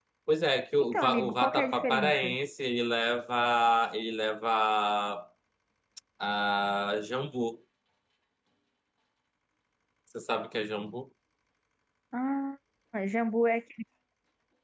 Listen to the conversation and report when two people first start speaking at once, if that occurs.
1 s

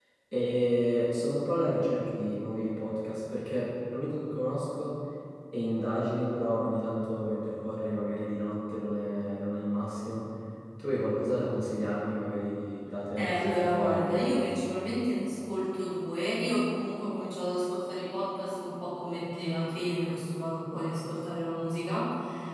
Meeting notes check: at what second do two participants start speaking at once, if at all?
13 s

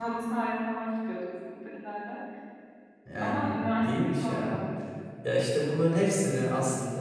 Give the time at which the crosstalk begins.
3 s

